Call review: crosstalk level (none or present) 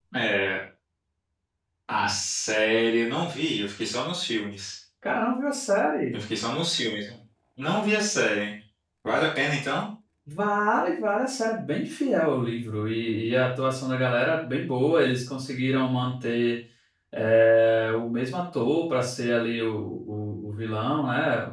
none